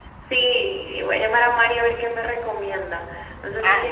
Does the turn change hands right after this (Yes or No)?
No